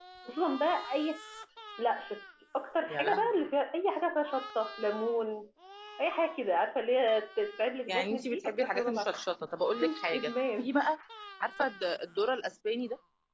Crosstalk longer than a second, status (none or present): present